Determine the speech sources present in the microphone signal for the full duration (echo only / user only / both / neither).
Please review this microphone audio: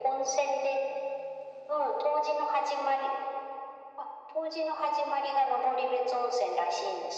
echo only